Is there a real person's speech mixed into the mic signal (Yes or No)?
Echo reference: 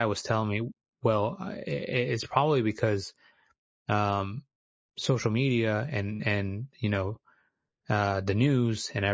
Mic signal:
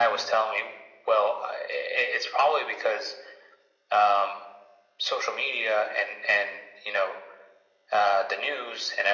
No